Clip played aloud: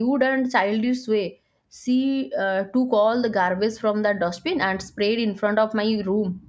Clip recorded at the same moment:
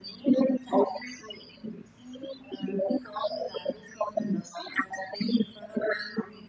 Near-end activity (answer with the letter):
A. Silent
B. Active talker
A